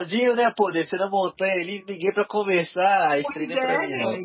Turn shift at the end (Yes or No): Yes